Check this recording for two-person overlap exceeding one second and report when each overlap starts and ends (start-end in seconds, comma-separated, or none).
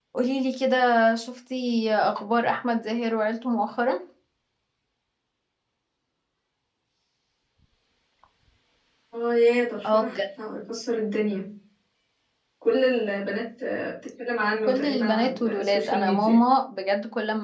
14.7-16.4